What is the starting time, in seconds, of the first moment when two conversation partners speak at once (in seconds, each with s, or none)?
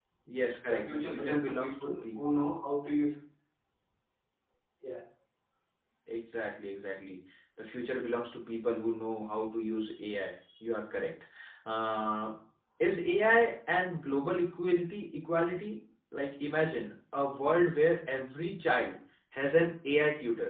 0.7 s